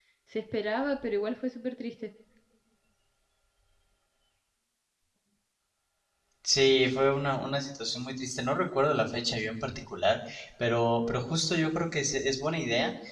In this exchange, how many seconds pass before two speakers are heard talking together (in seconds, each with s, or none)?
none